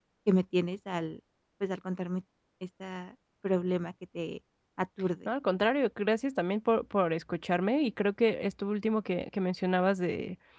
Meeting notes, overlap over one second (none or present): none